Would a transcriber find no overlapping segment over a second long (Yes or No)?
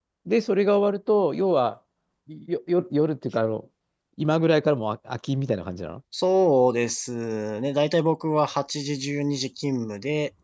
Yes